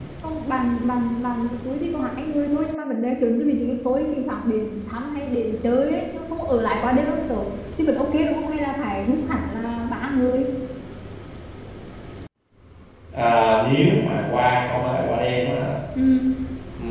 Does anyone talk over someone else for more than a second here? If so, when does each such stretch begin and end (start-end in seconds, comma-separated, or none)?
none